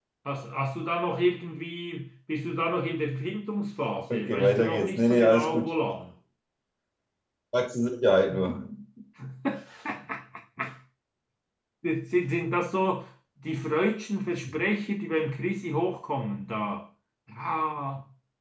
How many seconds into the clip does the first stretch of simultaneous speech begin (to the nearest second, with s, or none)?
4 s